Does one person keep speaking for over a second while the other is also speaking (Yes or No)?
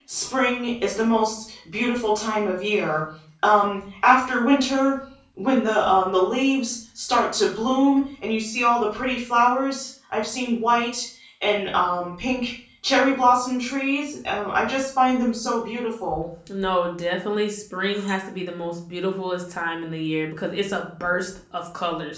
No